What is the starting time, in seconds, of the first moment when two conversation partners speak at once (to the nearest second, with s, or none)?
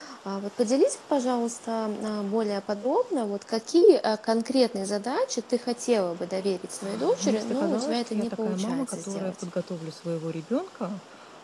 7 s